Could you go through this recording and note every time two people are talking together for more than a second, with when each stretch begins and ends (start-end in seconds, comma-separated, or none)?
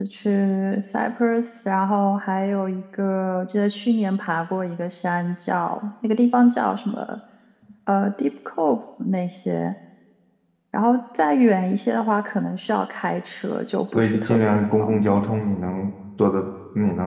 13.9-15.3